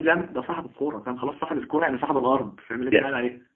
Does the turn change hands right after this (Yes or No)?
Yes